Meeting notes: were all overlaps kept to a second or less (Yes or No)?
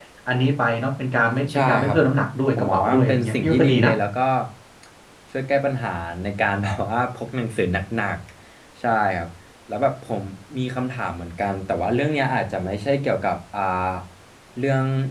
No